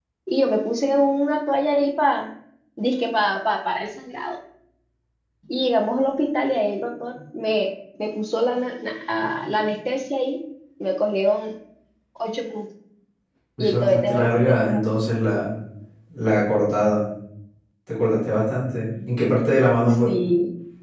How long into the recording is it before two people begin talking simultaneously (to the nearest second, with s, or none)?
14 s